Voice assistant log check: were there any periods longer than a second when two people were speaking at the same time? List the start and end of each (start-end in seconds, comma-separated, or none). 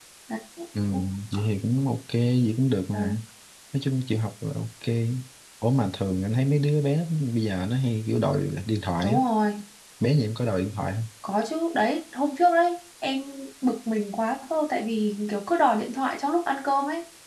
none